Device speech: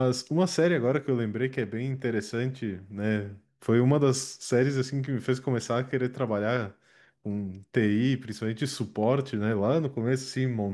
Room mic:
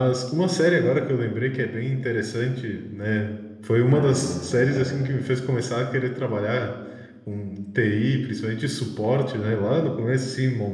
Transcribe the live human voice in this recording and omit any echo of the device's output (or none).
Mas, é,